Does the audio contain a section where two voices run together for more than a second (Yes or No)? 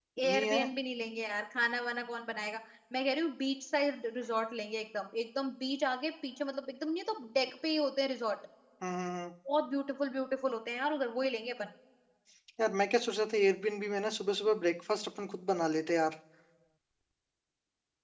No